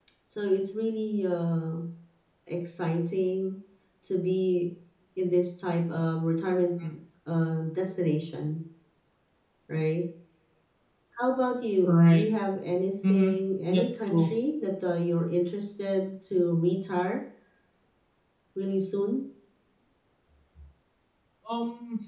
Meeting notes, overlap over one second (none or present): none